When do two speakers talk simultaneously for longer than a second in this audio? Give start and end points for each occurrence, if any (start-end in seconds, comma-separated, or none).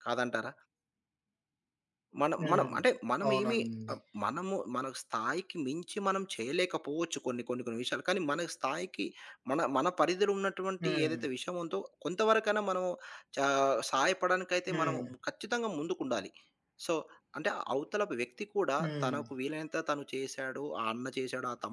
none